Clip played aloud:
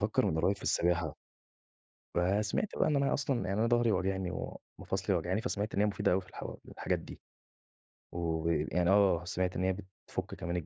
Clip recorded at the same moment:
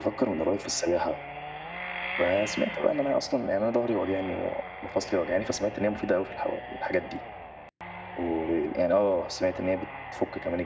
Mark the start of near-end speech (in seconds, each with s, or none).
none